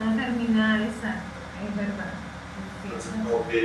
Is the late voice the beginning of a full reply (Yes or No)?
Yes